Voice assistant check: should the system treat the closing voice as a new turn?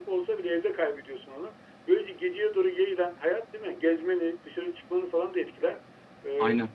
No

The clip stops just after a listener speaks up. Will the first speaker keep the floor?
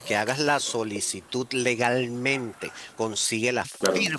Yes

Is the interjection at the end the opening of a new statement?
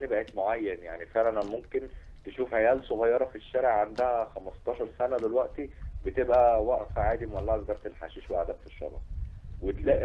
No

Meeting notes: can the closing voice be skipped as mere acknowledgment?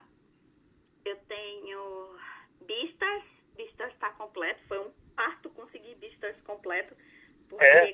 Yes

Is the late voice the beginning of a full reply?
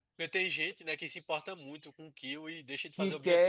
Yes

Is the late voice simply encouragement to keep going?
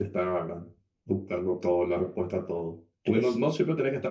Yes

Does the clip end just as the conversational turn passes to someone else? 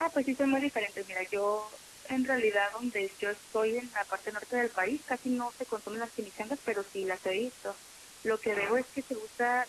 No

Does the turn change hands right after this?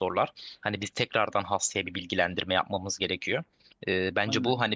No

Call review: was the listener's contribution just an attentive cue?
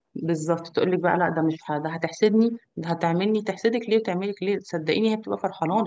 No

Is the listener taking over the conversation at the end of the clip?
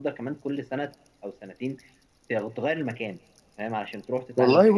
Yes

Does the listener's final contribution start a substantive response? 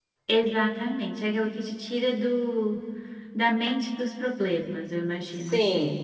Yes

